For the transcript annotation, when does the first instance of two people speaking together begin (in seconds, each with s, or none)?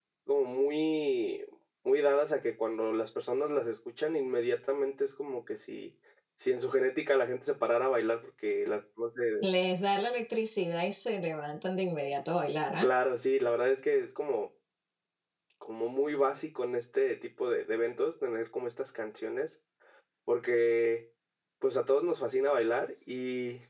none